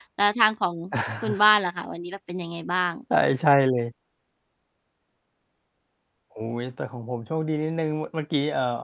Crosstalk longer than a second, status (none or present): none